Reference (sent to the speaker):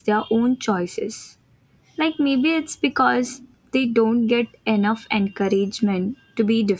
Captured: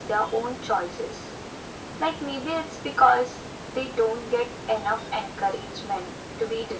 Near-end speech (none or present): none